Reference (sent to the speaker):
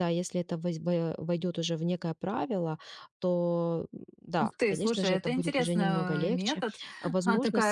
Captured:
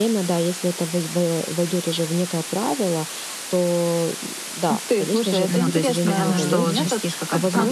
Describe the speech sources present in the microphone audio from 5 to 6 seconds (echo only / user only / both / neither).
both